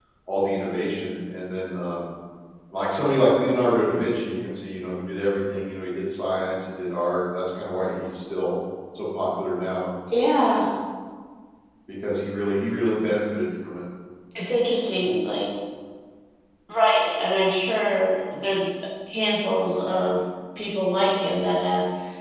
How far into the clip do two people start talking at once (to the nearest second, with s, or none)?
none